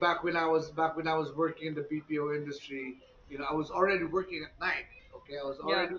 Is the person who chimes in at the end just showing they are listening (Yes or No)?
Yes